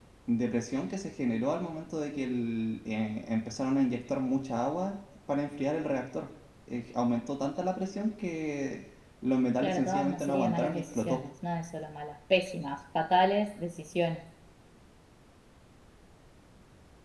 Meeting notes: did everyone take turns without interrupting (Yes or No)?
No